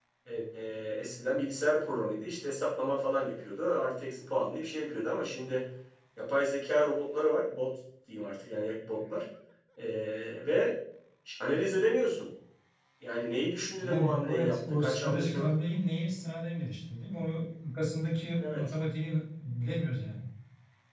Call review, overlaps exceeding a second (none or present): present